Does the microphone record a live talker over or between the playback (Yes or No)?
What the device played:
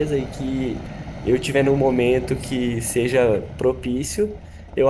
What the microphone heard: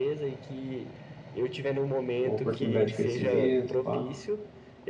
Yes